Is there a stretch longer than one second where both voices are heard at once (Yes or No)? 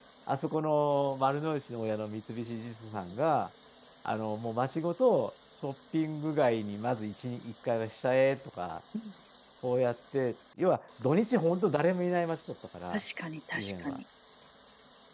No